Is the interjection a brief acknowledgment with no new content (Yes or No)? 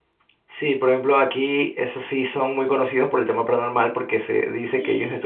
Yes